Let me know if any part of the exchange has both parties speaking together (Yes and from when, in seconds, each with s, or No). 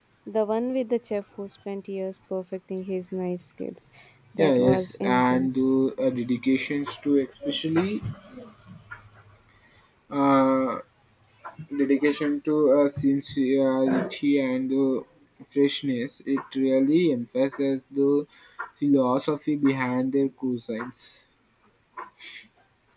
Yes, from 4.4 s